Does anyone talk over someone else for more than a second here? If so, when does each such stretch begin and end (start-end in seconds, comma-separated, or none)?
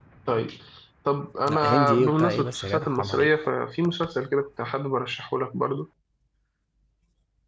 1.5-3.3